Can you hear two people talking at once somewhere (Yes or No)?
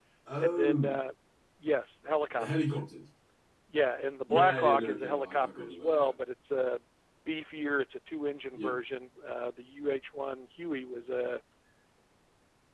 Yes